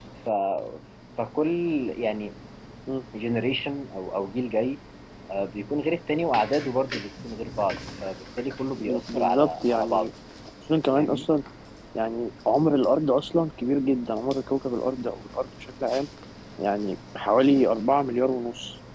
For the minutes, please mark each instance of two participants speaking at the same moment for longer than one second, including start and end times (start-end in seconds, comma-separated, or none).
8.8-10.1